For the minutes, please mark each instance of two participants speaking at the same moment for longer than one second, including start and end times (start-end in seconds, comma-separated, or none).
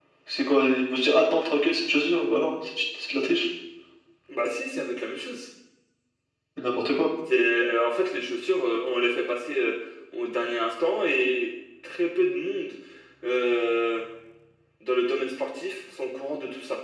none